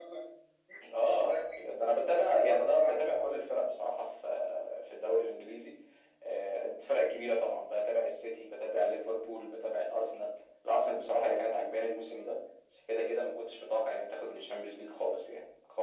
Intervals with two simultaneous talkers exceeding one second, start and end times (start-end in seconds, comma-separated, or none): 1.2-3.4